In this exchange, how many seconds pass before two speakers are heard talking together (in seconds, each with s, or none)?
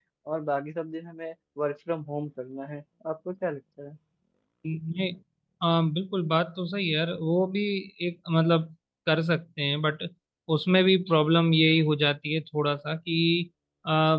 none